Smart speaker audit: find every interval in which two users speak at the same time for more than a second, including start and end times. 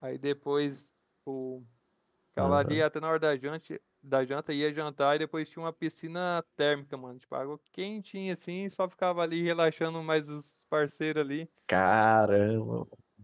none

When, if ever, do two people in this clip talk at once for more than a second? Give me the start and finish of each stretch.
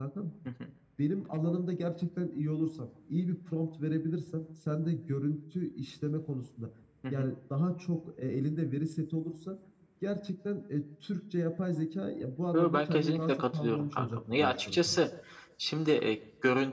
12.5-15.0

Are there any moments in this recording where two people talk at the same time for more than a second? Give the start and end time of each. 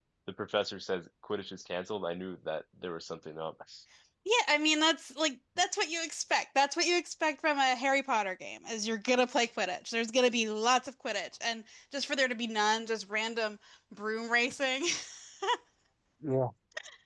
none

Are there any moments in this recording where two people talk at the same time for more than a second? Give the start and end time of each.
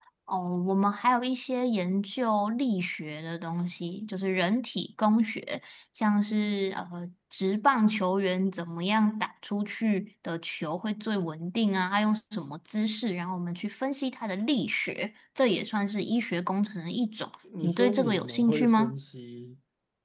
17.6-19.0

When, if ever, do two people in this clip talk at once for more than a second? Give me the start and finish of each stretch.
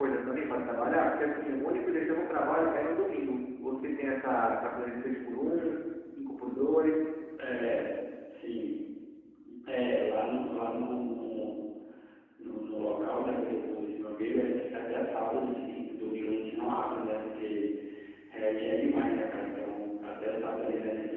none

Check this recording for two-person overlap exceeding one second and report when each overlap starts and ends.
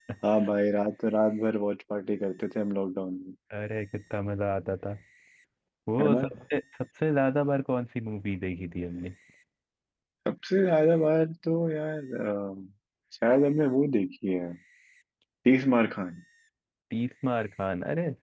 none

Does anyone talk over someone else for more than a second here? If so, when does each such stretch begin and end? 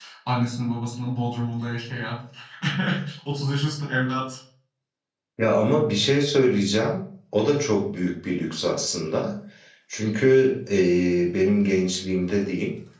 none

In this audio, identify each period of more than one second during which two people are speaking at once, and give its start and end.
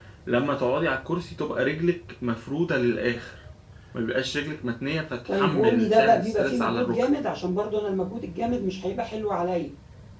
5.3-7.1

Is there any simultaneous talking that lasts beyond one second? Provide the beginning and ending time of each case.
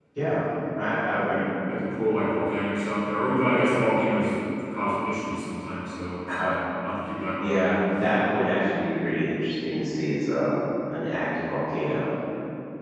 none

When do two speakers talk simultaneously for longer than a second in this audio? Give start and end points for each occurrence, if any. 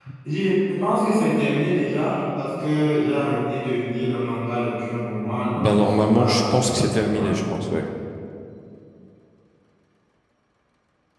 5.6-7.5

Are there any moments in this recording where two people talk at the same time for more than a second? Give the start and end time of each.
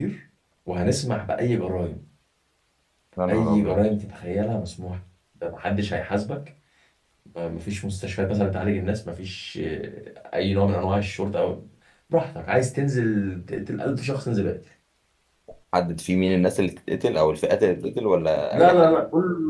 none

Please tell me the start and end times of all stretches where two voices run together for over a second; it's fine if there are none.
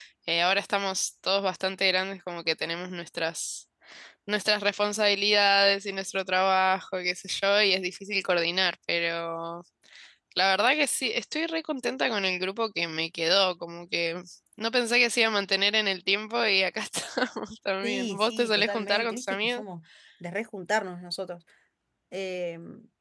17.8-19.6

